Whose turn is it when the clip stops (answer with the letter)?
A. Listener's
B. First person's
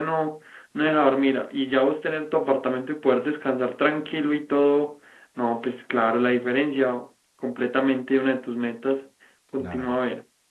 A